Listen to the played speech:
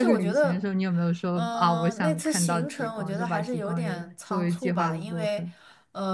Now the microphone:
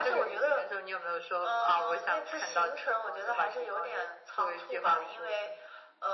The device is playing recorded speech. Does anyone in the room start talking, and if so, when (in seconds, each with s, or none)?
none